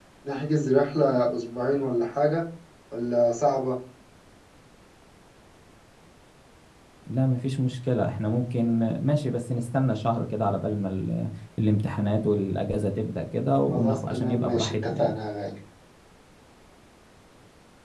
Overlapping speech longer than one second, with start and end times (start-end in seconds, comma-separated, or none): 13.7-15.1